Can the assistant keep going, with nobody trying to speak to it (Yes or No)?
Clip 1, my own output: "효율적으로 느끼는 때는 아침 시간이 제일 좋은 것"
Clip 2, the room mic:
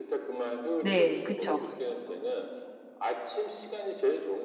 No